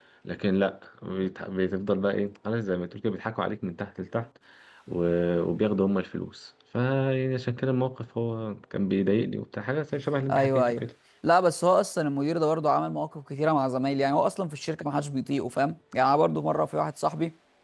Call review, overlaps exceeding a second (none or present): none